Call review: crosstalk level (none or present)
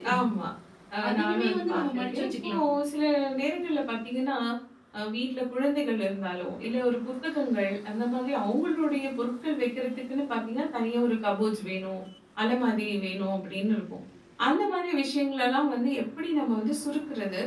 present